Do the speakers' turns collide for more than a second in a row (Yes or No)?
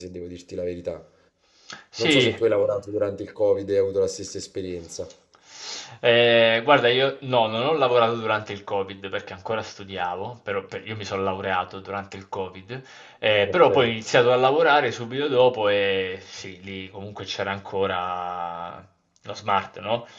No